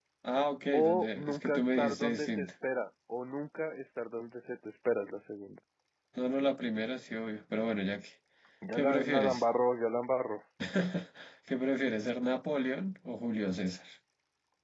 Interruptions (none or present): present